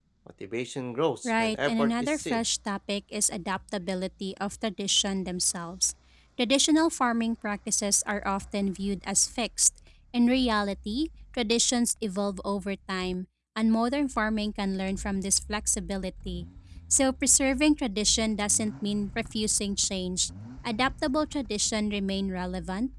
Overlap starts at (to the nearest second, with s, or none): 1 s